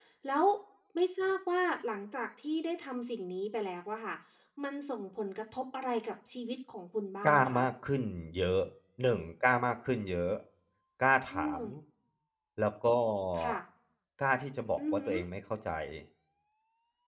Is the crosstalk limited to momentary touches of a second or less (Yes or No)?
Yes